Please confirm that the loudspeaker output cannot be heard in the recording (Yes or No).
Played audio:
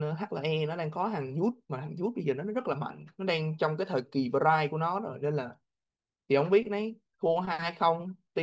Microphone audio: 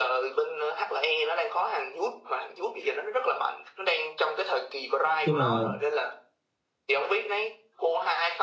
No